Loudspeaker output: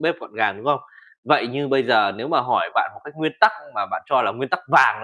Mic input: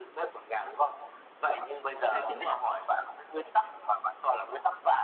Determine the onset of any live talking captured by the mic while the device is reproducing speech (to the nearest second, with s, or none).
2 s